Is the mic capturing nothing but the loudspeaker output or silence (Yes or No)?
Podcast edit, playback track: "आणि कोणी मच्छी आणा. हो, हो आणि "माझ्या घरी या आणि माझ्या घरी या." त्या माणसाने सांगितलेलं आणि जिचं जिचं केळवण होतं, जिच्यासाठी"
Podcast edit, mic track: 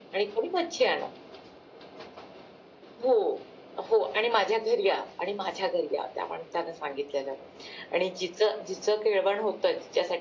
Yes